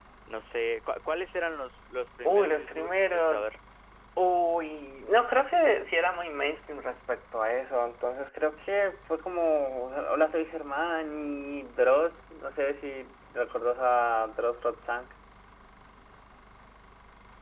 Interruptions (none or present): present